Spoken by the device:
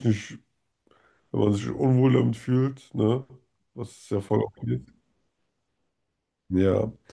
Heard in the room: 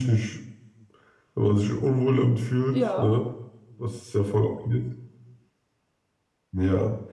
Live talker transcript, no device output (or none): ja.